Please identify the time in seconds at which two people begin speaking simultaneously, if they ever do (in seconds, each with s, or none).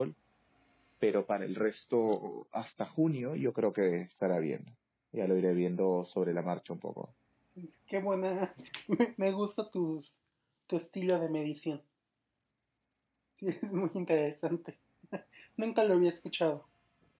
none